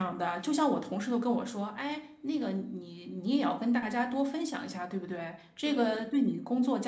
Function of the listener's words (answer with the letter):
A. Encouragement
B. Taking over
A